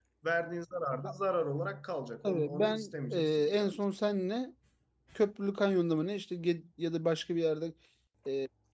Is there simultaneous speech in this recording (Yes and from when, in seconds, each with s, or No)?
Yes, from 2.2 s